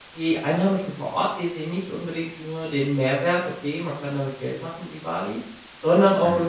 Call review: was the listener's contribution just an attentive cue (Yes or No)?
Yes